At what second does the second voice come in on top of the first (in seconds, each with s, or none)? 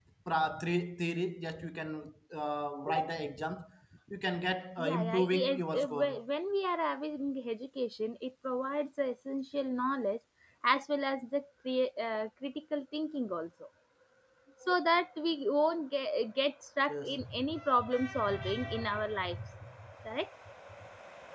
4.8 s